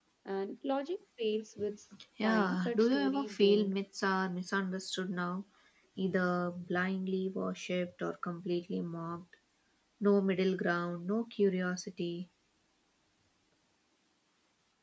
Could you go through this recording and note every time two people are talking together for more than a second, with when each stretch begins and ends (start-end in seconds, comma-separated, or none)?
2.2-3.7